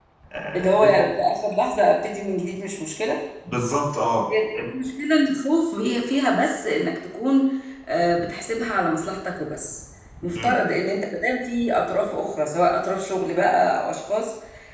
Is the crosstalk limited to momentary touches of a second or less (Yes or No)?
Yes